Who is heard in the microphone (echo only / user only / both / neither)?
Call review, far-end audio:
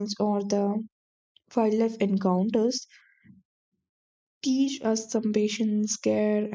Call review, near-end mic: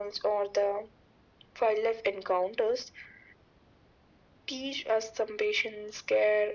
echo only